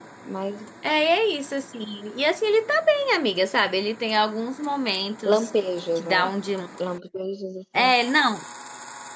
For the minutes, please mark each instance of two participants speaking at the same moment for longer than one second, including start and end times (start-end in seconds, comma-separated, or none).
none